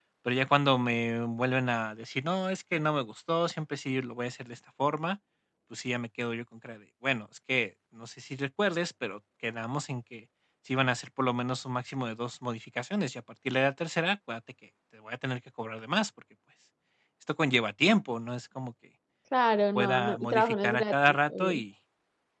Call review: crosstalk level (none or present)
present